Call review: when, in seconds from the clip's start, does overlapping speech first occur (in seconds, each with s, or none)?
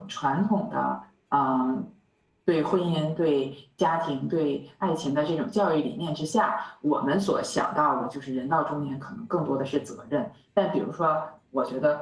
none